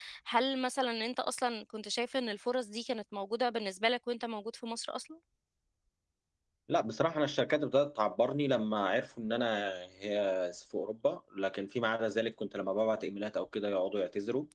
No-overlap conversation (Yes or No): Yes